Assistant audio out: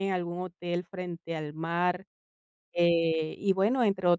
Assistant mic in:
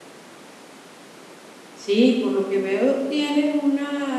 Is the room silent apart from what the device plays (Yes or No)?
No